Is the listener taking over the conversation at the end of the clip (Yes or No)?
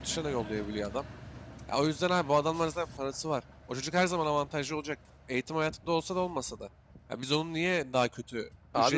No